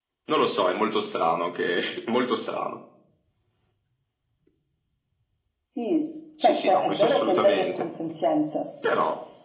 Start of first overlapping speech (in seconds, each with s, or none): 6.4 s